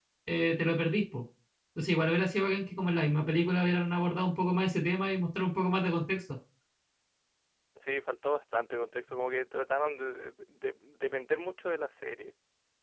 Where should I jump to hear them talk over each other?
none

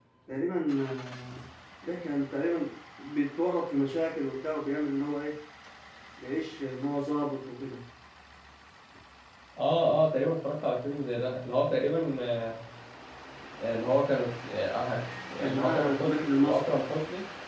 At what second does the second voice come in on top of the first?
15.4 s

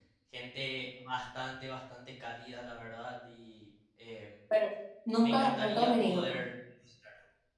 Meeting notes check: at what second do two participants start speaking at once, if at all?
5.2 s

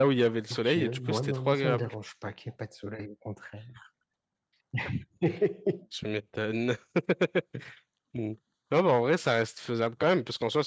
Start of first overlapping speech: 0.5 s

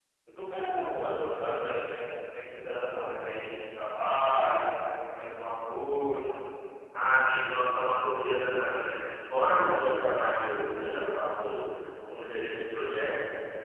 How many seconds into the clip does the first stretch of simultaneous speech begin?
none

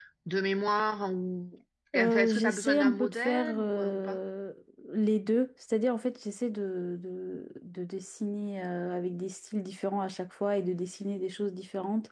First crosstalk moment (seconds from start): 1.9 s

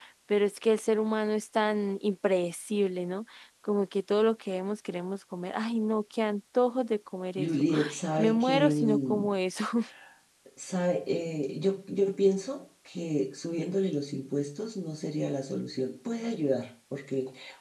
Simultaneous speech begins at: 7.3 s

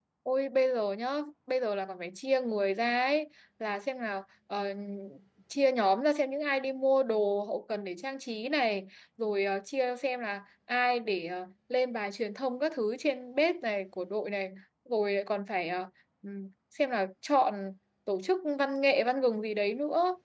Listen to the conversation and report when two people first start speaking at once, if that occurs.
none

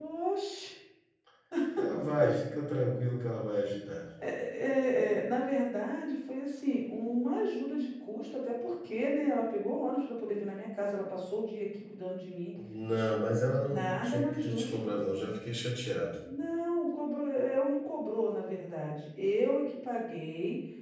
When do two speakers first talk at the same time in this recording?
13.6 s

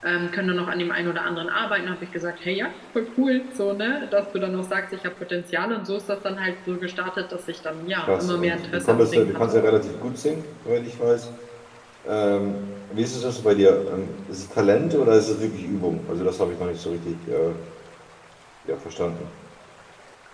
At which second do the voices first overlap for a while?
8.1 s

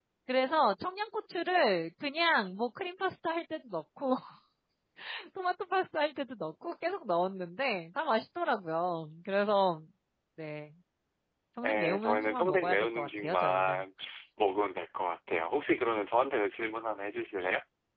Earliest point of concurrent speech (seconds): 11.6 s

